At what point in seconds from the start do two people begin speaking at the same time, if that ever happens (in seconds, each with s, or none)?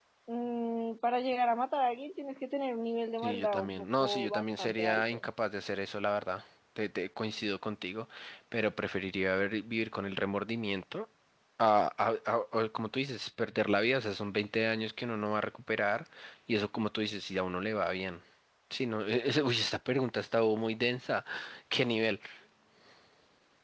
3.2 s